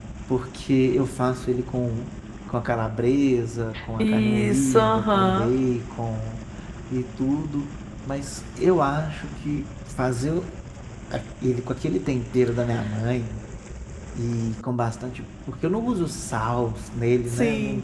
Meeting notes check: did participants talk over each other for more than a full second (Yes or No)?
Yes